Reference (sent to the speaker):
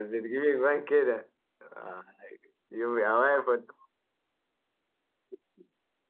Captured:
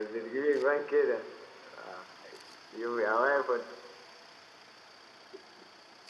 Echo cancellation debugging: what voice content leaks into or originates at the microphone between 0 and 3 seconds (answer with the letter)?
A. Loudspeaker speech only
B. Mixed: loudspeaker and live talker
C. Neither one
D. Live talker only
A